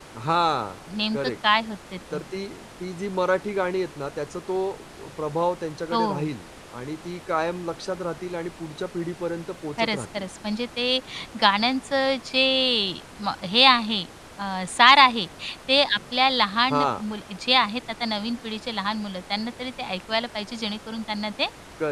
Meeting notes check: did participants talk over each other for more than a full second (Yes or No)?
No